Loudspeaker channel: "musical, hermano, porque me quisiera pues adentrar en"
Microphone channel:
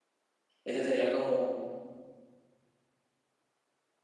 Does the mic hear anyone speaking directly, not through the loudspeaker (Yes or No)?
Yes